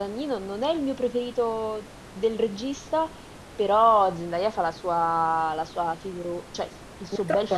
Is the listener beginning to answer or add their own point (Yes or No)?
Yes